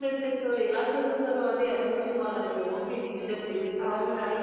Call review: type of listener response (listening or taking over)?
taking over